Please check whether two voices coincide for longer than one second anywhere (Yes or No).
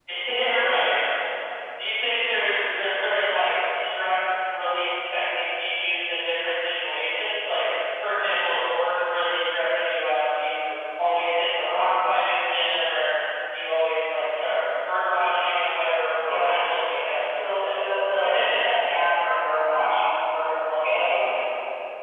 No